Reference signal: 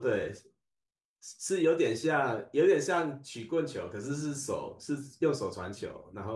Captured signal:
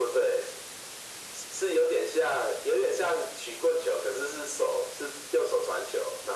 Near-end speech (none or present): none